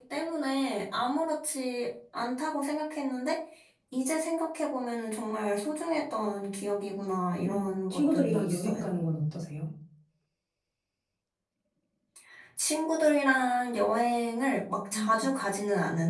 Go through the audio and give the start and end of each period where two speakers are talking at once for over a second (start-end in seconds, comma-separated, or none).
7.5-8.8